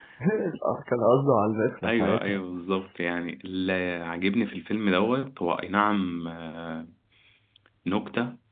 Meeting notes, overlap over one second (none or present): none